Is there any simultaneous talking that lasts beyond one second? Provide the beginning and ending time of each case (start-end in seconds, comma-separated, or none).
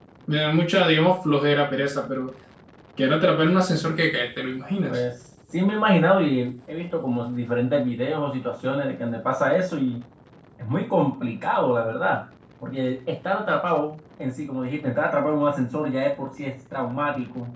none